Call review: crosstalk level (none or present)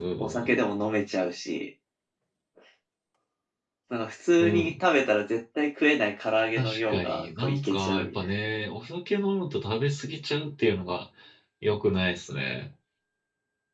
present